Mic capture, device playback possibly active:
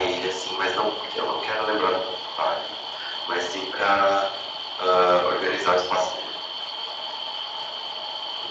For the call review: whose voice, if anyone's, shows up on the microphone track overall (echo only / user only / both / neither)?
echo only